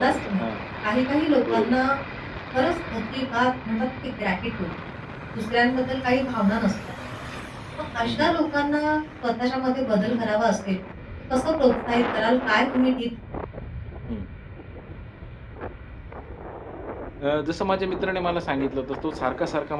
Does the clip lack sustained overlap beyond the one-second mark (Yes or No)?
Yes